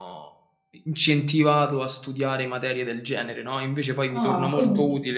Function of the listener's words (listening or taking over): taking over